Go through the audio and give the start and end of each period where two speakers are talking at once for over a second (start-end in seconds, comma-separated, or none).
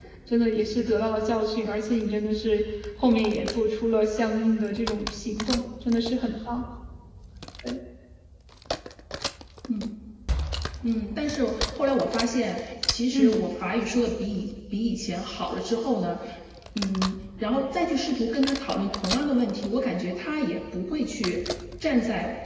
none